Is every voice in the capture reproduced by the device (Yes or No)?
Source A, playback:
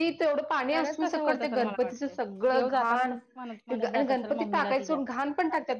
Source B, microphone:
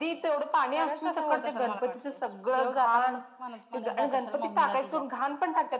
Yes